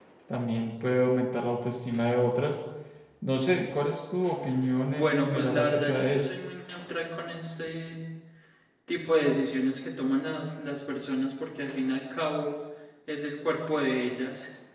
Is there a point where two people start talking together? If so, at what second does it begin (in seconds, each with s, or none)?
4.9 s